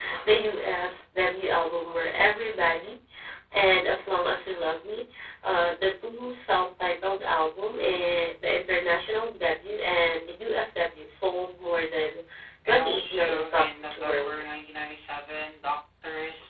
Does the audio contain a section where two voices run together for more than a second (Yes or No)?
Yes